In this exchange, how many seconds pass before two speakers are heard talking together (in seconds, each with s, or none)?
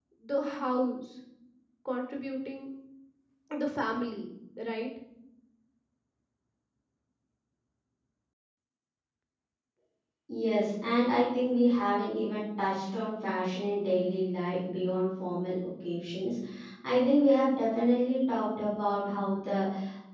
none